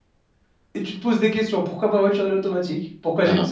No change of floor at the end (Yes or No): Yes